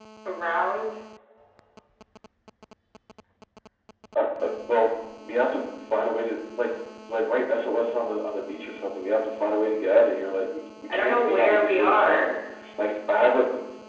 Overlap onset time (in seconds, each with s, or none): 10.9 s